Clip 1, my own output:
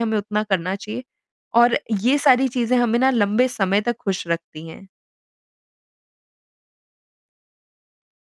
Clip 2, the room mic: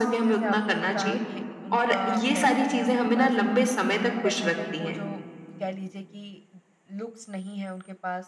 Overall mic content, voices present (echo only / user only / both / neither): both